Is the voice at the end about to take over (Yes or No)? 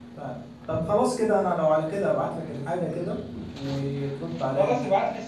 Yes